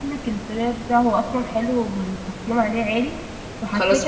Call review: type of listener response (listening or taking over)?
listening